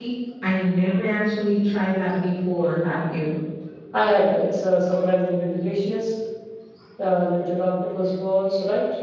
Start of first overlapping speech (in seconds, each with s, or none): none